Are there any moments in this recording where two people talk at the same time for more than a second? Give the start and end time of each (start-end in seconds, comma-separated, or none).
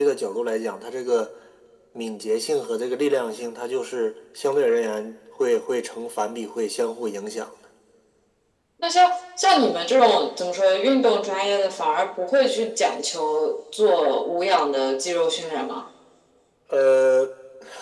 none